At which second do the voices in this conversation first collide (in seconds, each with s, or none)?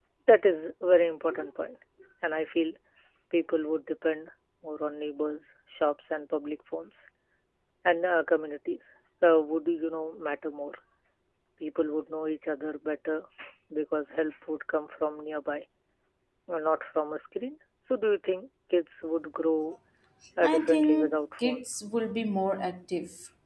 20.4 s